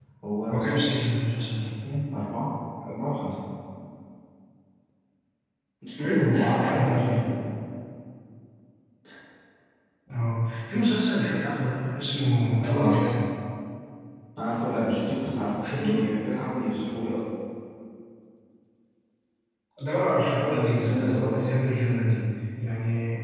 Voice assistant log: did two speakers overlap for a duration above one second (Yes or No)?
Yes